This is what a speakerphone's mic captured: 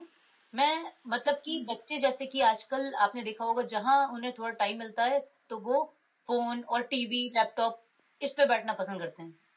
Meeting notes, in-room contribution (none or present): none